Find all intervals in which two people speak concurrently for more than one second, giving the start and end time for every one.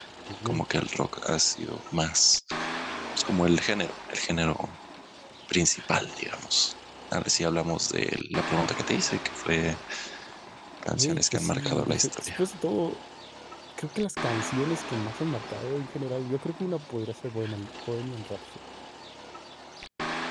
11.0-12.5

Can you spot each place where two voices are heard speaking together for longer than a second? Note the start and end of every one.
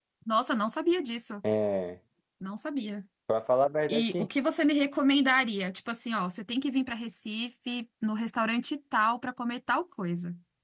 none

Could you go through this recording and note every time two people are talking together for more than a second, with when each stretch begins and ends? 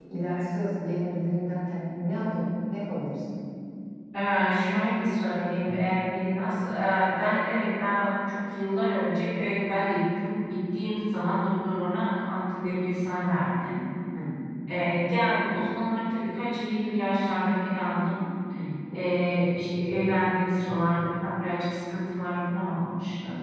none

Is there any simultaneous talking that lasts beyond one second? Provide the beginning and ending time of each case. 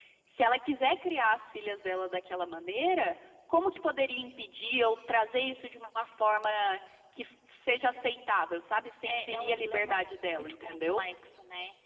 9.1-11.0

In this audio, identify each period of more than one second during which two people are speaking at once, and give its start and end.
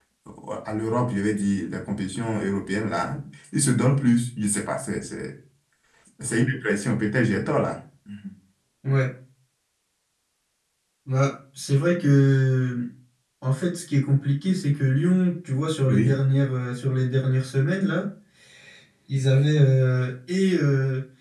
none

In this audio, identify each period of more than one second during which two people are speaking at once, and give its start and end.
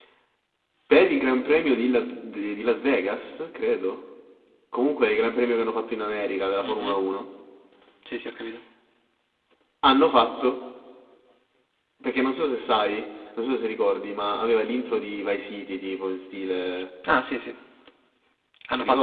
none

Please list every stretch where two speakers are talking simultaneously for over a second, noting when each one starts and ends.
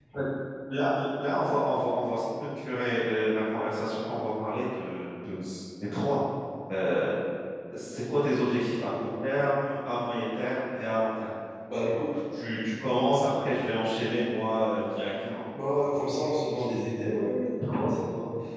none

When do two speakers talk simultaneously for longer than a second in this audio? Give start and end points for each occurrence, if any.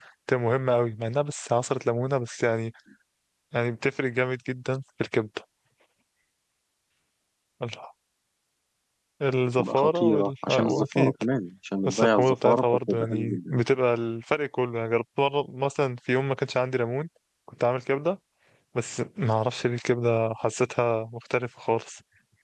9.6-11.1, 11.9-13.6

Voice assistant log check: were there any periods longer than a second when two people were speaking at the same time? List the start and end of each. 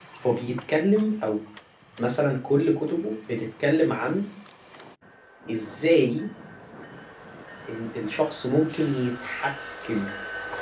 none

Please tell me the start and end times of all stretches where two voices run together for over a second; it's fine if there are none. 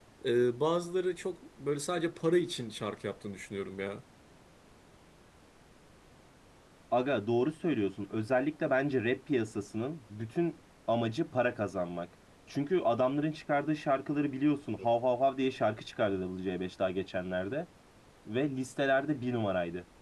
none

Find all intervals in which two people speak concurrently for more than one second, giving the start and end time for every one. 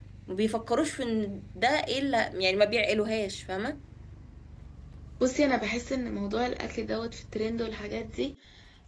none

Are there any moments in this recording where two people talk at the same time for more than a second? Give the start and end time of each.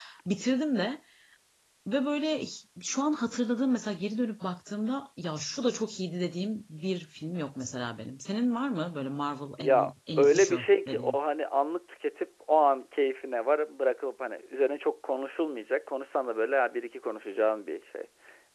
9.6-11.2

